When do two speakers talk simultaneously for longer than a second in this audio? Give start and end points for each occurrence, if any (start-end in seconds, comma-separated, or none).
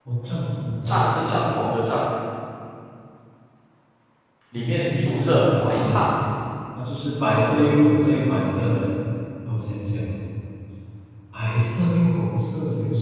4.5-6.0